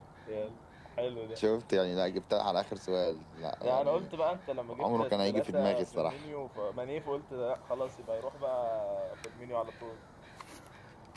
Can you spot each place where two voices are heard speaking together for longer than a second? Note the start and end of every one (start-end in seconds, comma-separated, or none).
4.8-6.2